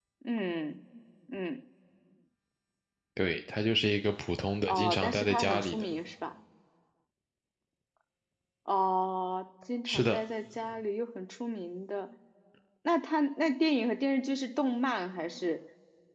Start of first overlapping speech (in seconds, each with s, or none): 4.7 s